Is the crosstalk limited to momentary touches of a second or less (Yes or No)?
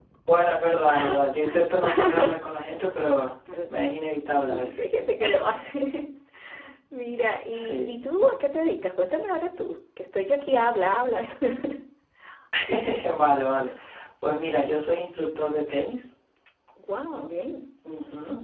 Yes